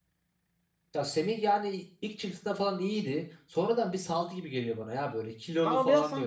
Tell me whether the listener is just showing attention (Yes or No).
No